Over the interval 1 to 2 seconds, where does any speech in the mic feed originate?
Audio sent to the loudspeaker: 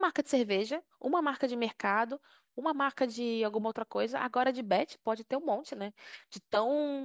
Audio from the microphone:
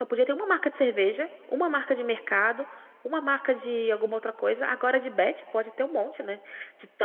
echo only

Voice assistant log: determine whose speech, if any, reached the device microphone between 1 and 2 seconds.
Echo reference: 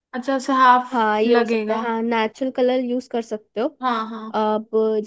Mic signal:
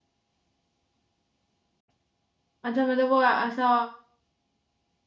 neither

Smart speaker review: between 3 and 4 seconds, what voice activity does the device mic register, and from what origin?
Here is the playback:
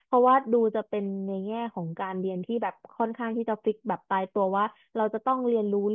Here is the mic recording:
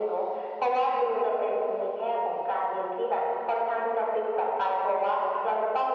echo only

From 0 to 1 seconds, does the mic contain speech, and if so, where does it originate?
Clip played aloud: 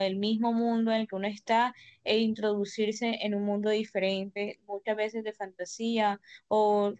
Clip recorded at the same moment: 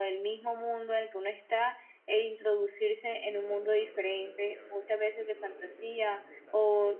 echo only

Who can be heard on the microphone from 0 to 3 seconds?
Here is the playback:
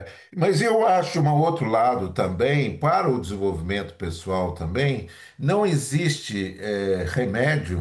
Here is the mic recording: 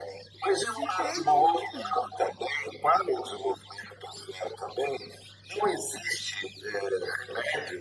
both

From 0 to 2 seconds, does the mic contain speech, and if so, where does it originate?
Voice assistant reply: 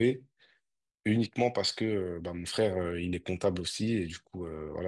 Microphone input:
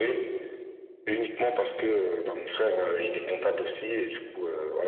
echo only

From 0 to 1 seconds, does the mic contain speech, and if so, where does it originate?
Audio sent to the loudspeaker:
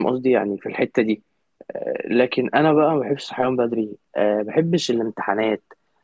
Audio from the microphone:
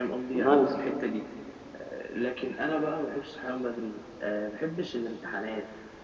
both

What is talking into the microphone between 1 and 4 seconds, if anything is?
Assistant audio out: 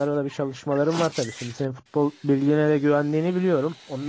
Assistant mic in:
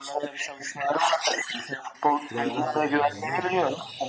both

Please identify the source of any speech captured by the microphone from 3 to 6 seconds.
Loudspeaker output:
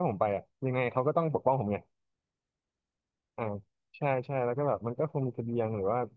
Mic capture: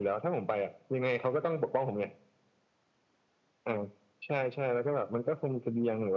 echo only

